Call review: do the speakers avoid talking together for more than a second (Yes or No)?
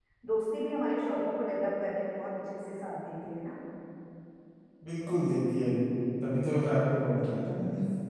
Yes